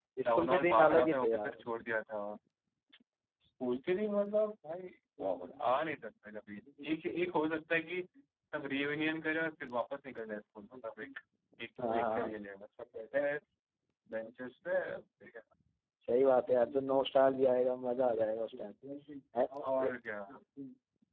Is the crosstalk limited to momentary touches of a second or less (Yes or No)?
No